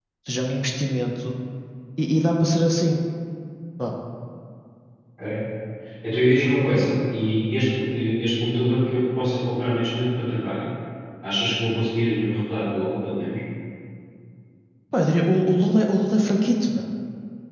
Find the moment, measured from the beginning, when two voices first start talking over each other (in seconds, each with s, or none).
none